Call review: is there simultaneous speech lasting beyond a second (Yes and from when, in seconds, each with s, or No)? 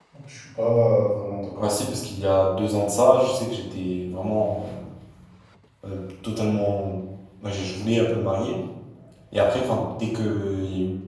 No